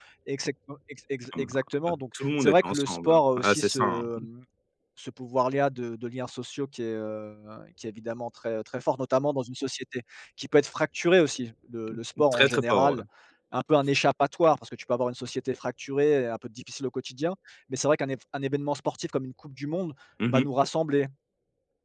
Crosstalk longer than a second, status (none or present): present